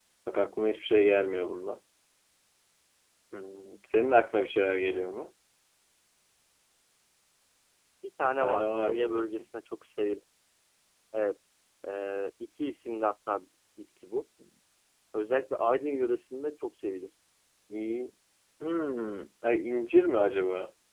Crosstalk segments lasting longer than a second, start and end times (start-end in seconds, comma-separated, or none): 8.2-9.5